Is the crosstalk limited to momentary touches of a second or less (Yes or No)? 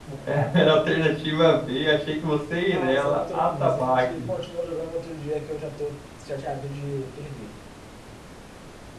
No